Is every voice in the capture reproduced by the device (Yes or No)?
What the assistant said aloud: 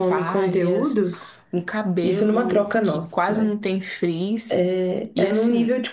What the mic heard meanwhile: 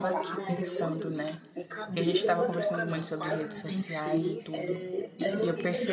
No